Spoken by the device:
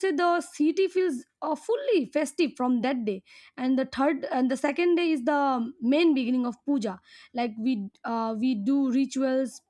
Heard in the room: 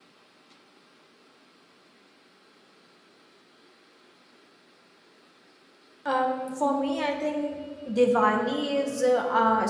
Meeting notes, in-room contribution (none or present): present